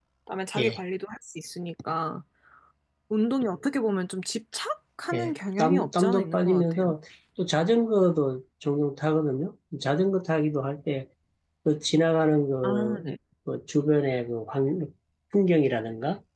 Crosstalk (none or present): present